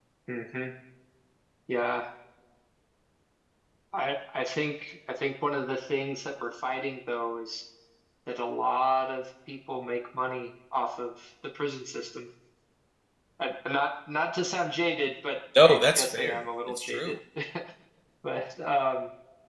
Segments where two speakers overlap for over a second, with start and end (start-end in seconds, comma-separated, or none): 15.6-17.1